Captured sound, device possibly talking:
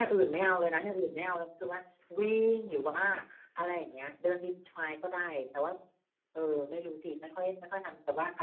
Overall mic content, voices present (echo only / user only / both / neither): echo only